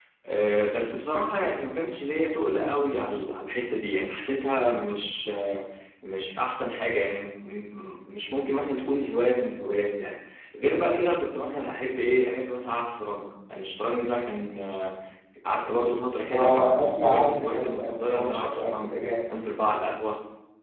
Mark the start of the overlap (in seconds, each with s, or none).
16.3 s